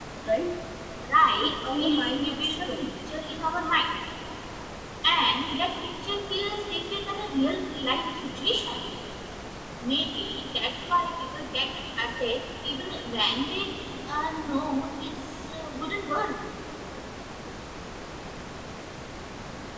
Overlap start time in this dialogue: 1.3 s

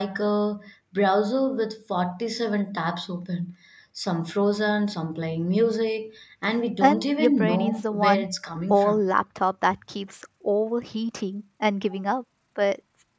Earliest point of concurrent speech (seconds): 6.8 s

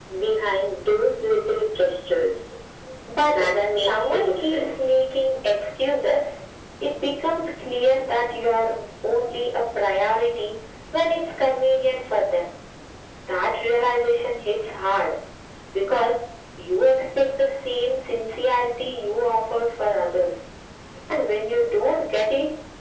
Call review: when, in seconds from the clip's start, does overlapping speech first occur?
3.3 s

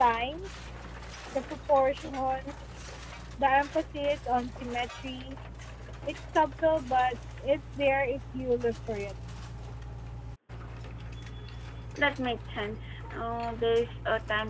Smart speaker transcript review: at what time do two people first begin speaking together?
none

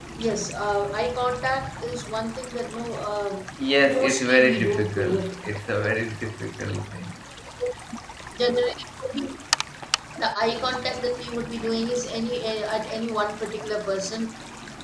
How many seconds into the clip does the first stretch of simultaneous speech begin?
3.9 s

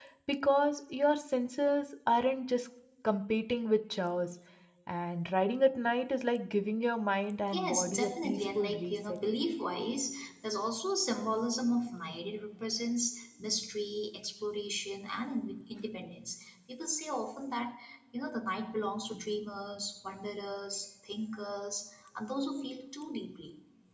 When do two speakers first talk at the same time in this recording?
7.5 s

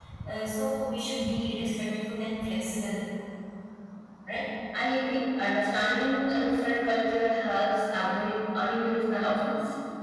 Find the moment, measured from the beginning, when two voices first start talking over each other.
none

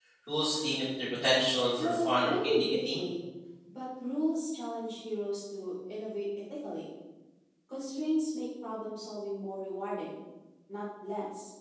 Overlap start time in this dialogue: 1.8 s

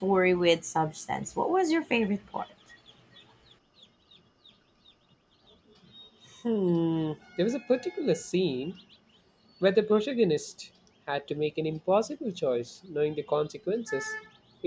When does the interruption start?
none

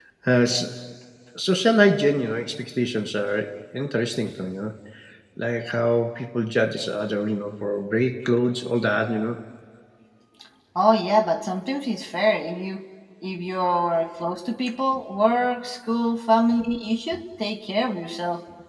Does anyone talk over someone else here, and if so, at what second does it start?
none

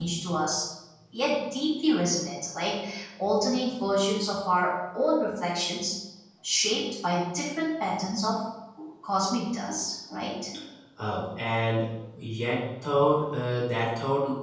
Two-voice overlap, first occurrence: none

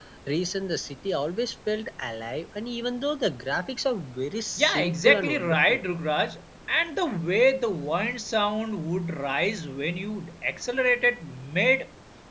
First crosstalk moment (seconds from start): 4.6 s

